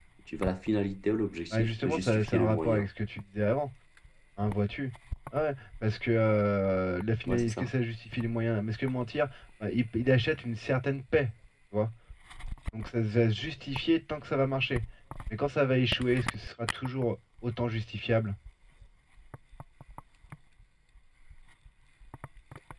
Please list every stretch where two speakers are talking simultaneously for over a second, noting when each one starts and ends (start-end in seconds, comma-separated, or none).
1.5-2.9